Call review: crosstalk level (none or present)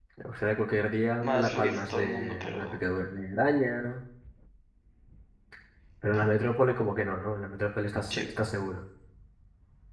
present